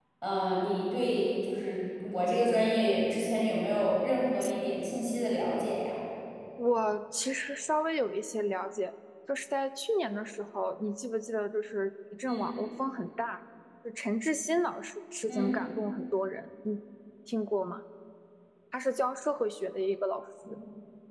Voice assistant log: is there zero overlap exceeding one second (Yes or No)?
Yes